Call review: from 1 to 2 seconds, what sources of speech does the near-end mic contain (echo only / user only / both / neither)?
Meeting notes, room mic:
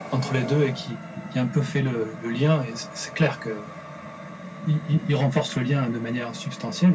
echo only